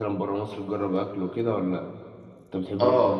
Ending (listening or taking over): taking over